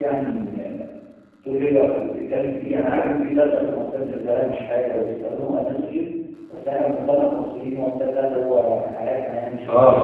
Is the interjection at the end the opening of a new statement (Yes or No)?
Yes